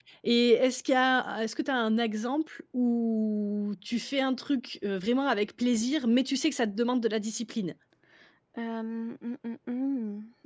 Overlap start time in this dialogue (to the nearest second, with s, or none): none